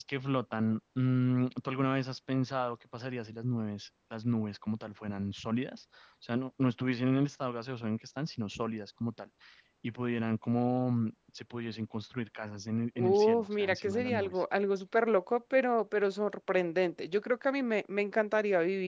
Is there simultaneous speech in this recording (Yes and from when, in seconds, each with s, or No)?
Yes, from 13.0 s